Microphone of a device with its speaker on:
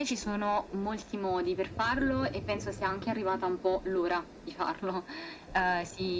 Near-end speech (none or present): none